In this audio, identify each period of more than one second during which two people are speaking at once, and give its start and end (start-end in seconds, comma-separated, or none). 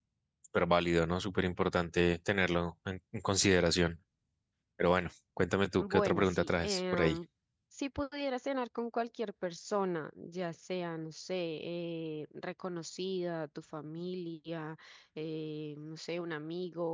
5.8-7.2